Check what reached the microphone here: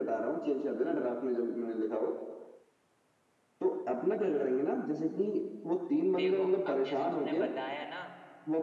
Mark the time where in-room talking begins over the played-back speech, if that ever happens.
6 s

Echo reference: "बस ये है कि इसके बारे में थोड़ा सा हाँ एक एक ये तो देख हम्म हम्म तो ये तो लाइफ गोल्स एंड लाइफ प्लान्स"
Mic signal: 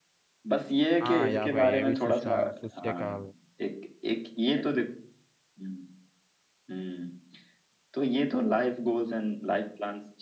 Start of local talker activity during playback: 1 s

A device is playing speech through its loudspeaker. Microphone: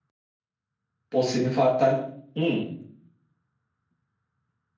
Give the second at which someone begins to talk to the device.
1 s

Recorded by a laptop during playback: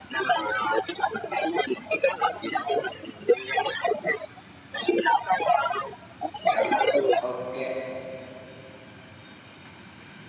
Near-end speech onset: 6 s

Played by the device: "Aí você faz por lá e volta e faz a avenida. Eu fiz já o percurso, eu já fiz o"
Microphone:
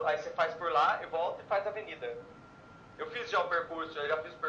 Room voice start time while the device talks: none

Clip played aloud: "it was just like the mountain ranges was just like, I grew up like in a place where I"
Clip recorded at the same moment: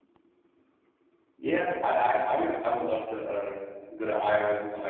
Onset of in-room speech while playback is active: 1 s

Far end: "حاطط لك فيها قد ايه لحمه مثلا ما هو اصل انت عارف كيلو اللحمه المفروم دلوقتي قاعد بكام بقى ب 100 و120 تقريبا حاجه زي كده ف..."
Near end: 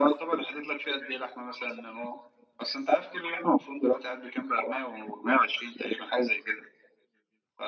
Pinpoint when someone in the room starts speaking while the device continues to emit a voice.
none

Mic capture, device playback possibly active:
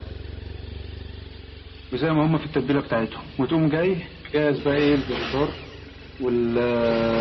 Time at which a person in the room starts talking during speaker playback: none

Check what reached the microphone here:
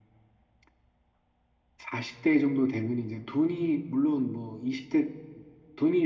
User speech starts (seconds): none

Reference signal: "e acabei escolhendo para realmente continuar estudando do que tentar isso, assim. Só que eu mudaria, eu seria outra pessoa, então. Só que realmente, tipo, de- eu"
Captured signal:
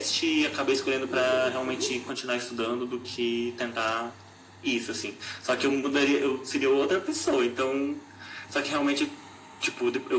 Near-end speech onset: 1 s

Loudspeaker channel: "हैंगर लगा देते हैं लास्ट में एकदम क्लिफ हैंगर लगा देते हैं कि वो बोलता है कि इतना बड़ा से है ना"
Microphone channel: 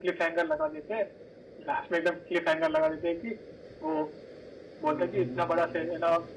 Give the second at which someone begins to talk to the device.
5 s

